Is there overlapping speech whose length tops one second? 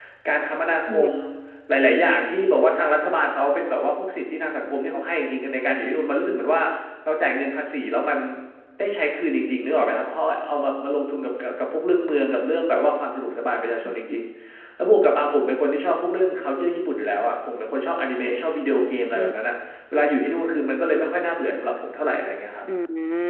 No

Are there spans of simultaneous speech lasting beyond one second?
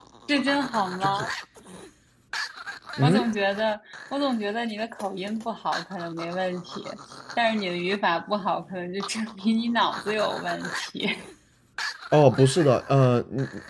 No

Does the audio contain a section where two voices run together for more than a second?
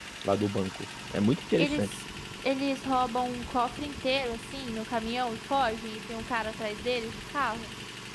No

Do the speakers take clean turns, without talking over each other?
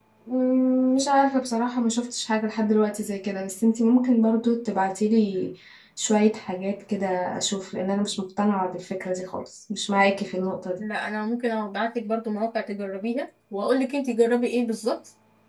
Yes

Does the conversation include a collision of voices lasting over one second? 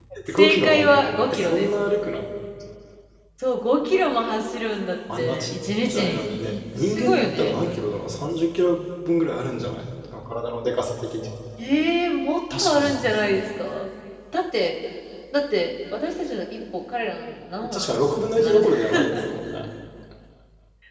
Yes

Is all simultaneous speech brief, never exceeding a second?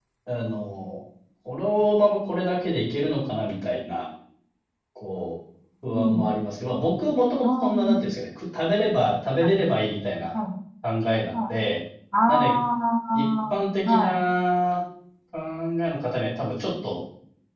Yes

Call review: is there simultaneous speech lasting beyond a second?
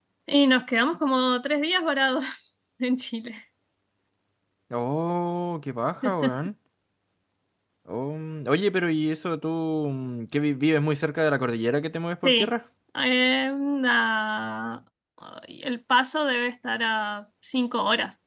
No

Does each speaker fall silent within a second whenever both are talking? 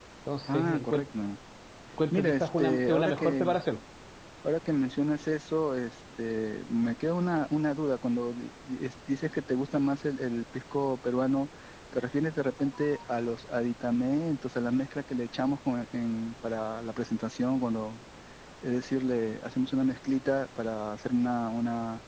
No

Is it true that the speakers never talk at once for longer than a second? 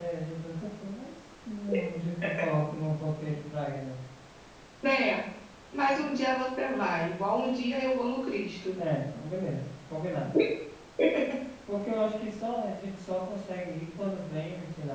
Yes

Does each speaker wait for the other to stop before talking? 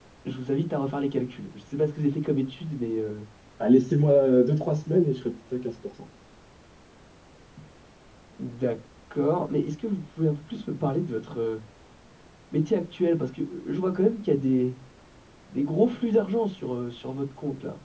Yes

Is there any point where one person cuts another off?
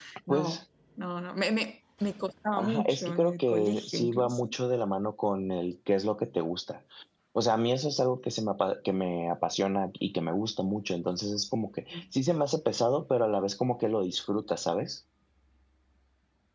Yes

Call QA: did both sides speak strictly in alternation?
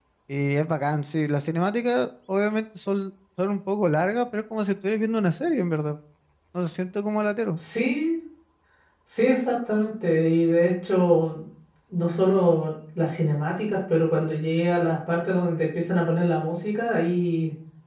Yes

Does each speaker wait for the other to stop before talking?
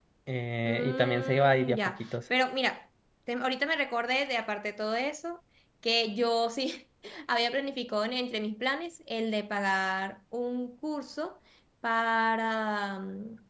No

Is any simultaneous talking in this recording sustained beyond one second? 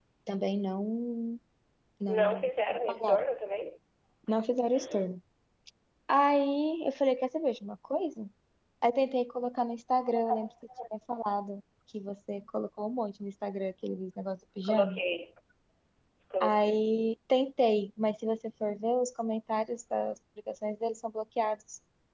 No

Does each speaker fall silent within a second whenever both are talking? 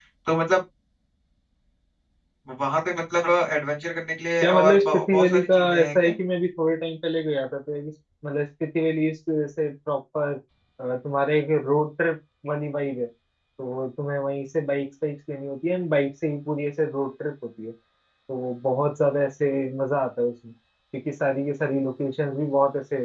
No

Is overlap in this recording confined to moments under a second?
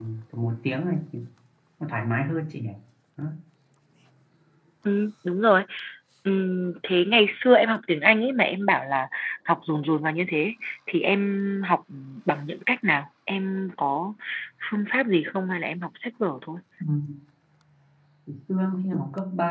Yes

